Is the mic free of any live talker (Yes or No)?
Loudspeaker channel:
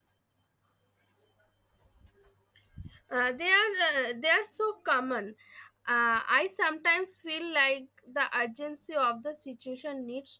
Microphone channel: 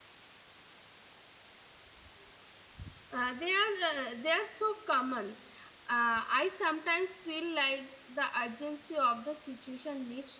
Yes